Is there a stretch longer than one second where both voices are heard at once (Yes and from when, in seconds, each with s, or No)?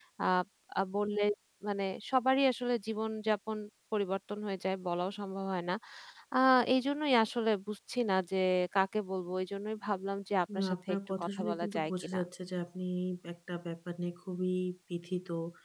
Yes, from 10.5 s